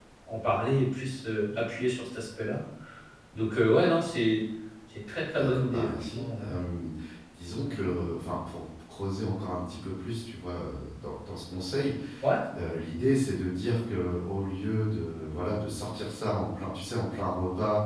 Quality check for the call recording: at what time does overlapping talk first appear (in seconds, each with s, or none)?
5.3 s